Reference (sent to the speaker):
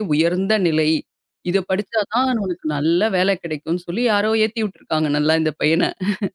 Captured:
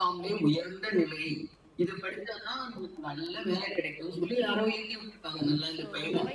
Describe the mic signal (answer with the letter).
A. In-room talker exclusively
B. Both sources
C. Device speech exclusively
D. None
B